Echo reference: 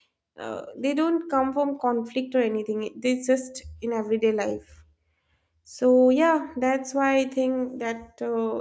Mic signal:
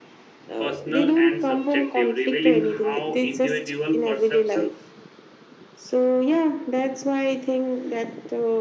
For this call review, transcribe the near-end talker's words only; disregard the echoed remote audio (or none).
personal, and subjective, revealing how individual perception,